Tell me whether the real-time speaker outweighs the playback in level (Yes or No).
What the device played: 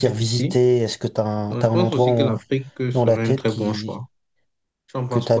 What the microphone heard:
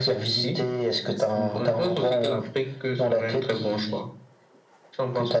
No